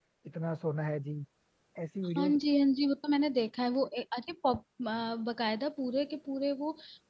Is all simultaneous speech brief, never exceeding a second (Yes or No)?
Yes